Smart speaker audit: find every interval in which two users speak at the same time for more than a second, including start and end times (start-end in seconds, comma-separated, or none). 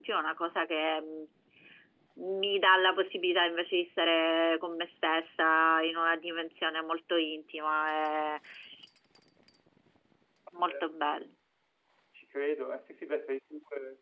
none